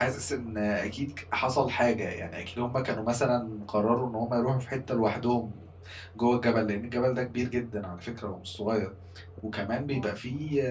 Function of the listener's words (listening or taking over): listening